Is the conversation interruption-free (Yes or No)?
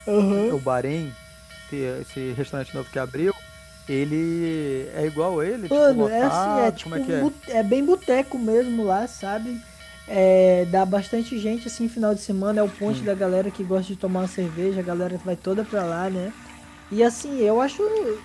No